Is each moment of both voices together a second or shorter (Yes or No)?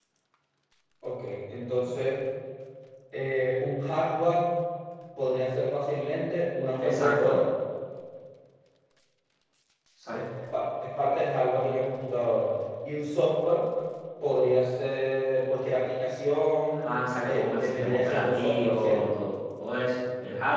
No